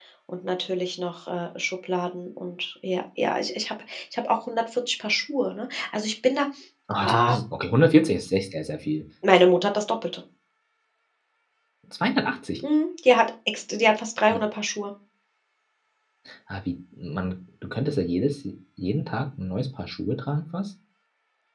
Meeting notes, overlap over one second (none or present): none